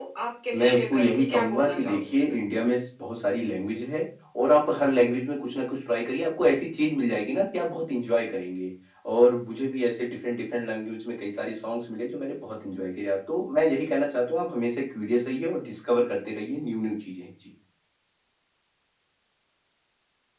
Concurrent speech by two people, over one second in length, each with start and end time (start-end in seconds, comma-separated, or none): 0.5-2.4